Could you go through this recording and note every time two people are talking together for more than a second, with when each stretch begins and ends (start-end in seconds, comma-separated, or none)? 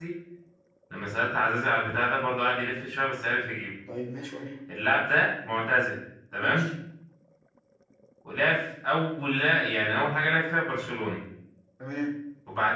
none